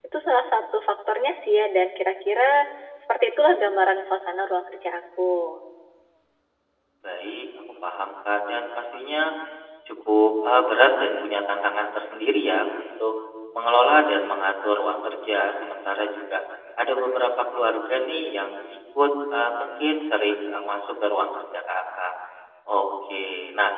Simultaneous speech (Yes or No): No